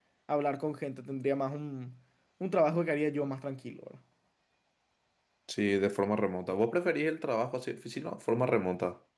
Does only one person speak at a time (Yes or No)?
Yes